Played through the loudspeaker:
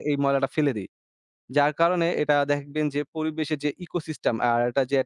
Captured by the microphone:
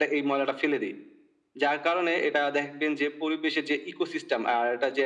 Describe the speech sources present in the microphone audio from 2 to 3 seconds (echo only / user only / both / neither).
echo only